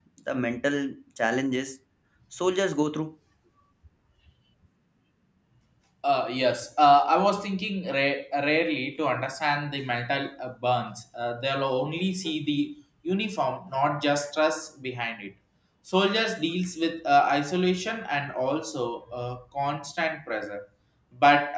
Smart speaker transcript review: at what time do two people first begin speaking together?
none

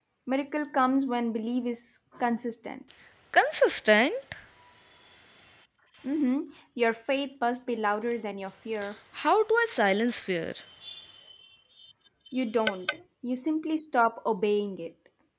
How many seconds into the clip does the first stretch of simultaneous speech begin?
none

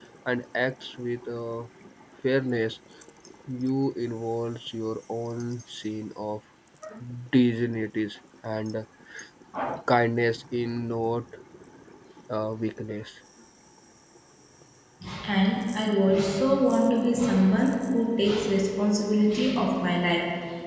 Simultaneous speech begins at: none

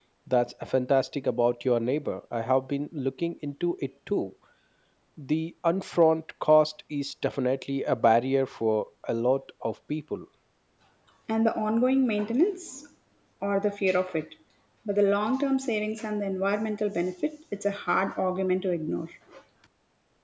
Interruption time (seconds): none

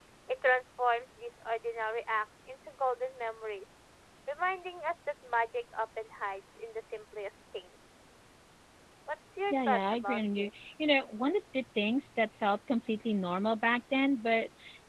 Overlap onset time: 9.5 s

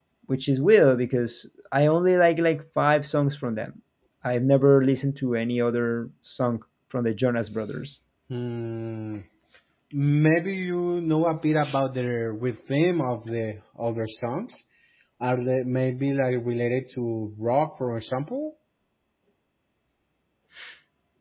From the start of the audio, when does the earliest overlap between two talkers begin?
none

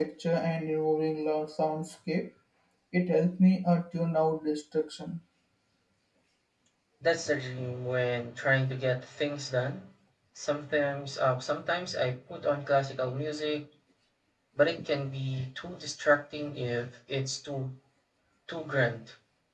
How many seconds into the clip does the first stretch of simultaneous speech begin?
none

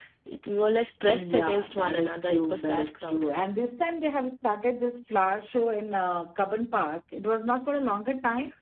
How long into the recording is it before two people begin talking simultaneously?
1.1 s

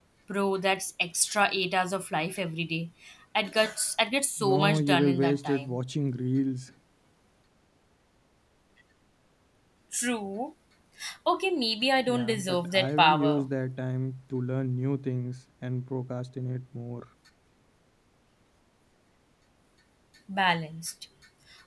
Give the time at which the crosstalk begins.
4.4 s

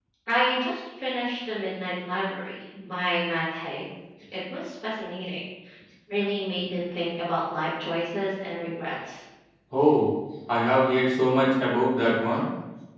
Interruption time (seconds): none

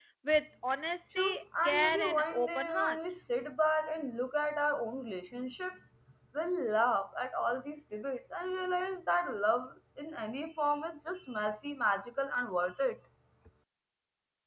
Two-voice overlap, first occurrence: 1.1 s

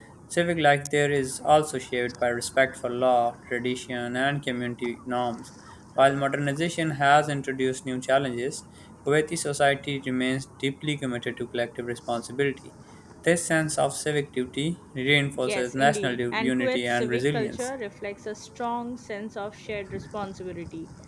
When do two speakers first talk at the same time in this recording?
15.5 s

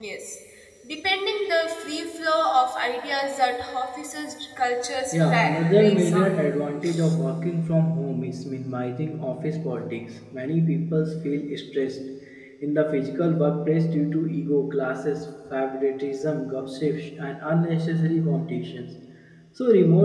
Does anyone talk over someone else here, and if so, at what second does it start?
5.1 s

